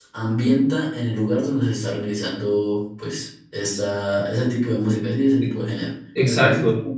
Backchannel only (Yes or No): No